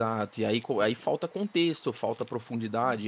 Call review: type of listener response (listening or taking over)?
listening